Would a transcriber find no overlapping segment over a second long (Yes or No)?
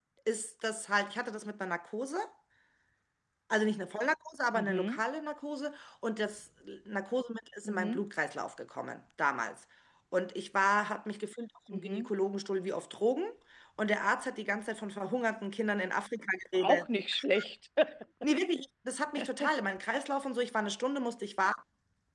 Yes